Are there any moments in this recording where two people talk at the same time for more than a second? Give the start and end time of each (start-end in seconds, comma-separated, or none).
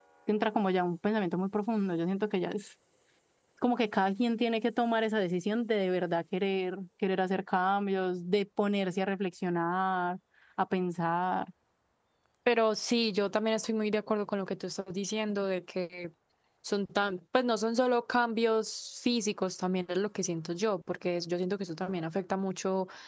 none